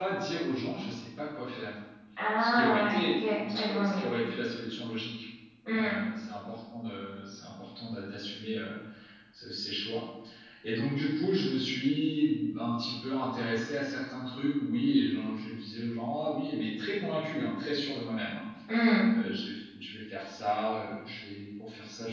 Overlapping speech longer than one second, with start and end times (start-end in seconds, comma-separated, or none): 2.4-4.0